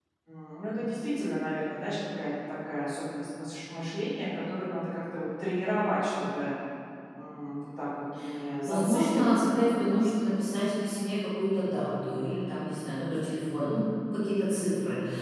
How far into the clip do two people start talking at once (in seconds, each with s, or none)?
8.6 s